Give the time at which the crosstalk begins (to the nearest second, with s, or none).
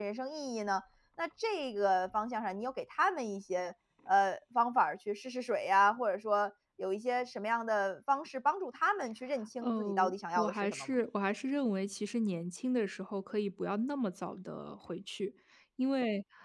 10 s